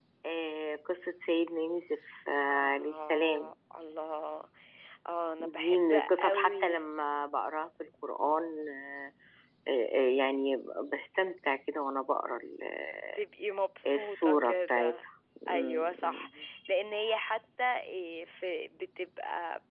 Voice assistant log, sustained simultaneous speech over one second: present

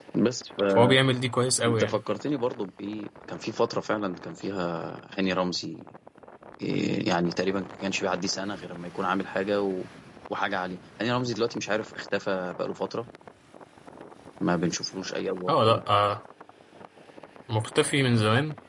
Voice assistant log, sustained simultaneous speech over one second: none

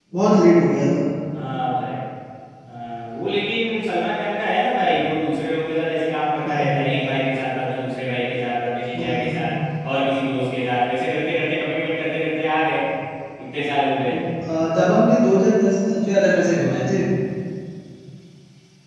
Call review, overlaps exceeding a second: none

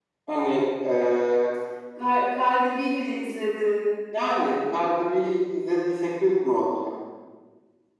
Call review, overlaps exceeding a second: none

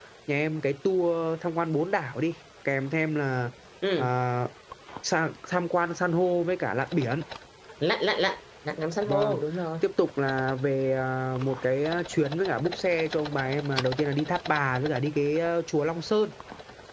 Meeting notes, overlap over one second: none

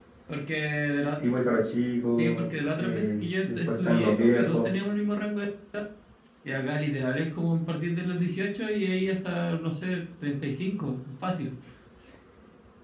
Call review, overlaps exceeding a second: present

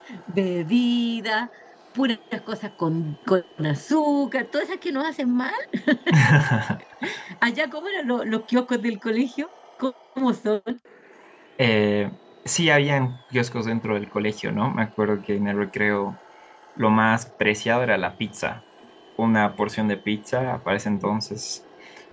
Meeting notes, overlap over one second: none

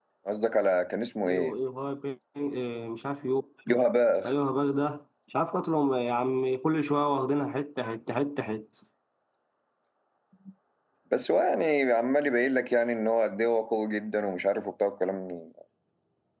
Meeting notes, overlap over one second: none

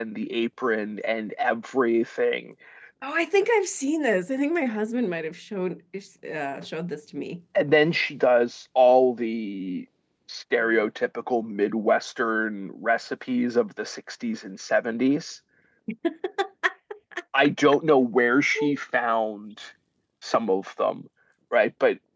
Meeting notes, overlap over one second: none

